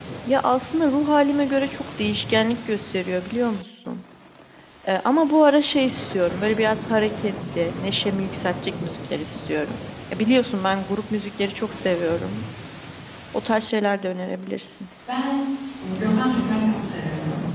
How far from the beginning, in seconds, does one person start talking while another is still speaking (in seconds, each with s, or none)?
none